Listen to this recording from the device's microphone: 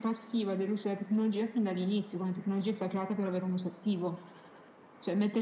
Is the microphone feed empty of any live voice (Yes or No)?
Yes